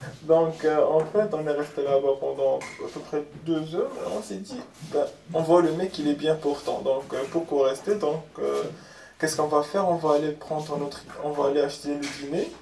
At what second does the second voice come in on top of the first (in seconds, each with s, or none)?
none